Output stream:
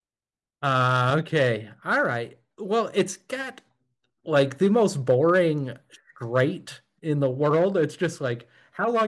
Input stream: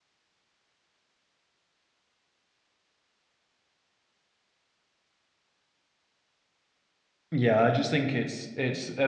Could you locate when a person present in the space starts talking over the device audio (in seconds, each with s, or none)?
7.3 s